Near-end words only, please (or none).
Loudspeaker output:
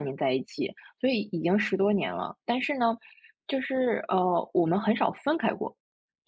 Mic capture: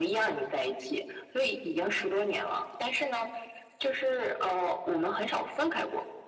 none